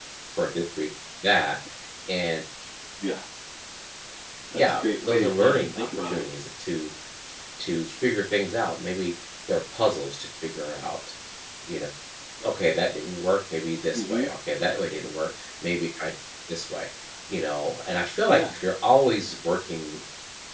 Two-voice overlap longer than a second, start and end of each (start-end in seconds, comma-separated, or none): 4.5-6.2